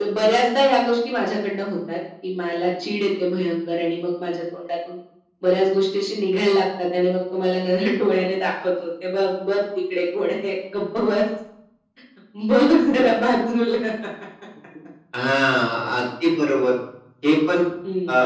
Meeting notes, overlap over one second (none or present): none